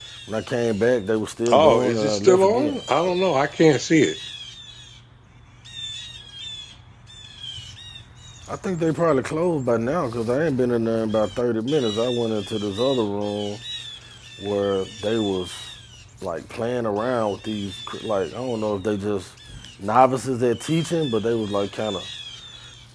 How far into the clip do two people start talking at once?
1.5 s

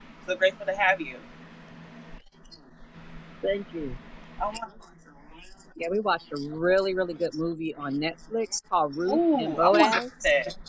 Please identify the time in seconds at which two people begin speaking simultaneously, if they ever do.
9.1 s

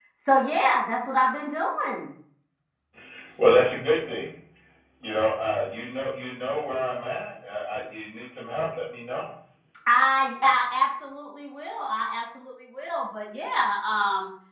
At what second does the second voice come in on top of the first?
none

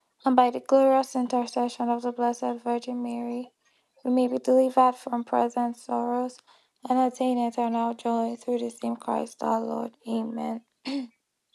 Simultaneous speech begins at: none

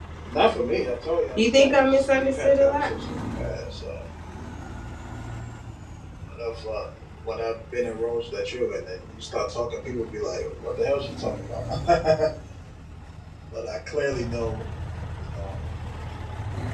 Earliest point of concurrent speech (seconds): 1.4 s

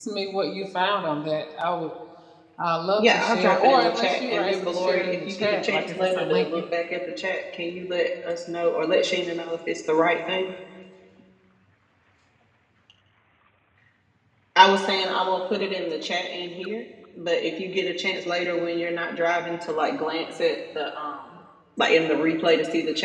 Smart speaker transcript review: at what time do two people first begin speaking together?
3.0 s

